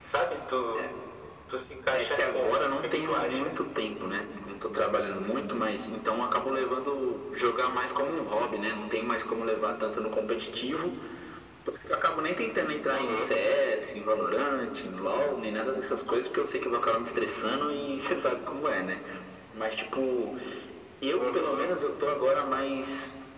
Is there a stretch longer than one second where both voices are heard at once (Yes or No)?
Yes